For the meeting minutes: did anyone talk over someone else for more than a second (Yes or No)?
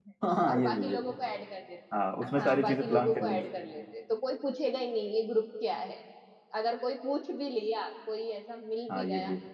Yes